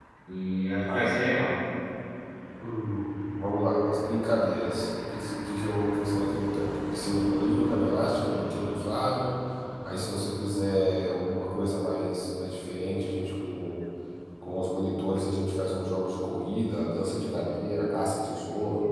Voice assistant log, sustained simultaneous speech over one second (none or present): none